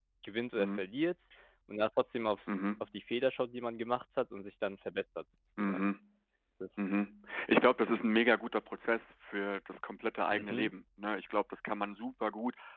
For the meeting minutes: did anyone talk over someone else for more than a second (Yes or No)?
No